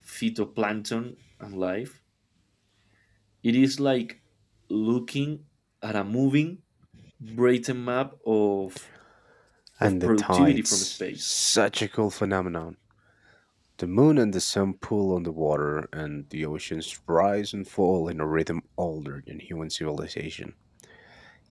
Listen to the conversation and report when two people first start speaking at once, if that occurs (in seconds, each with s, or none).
9.8 s